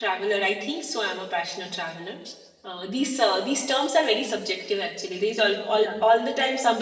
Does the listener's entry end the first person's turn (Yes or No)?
No